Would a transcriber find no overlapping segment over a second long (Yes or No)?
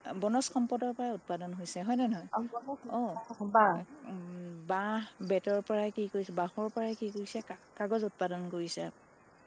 Yes